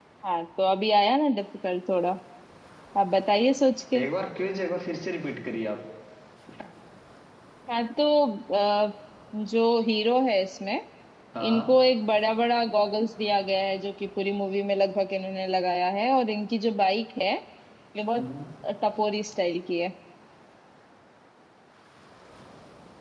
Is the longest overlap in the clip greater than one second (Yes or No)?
No